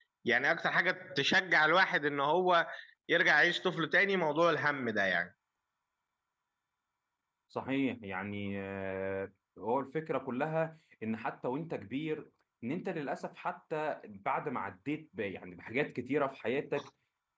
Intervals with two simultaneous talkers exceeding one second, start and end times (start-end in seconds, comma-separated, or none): none